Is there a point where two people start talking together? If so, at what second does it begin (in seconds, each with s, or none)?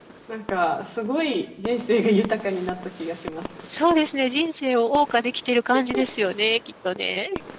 none